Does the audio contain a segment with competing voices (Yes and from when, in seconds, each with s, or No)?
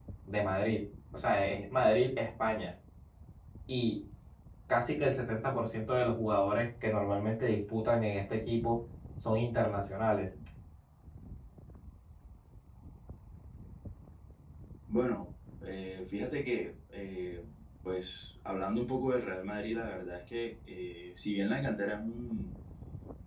No